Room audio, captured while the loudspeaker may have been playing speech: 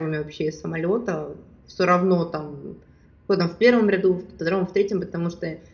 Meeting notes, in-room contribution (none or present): present